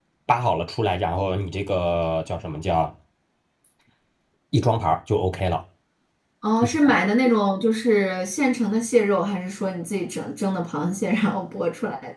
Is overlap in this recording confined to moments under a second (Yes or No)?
Yes